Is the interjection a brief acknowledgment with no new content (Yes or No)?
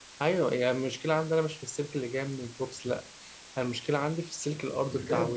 No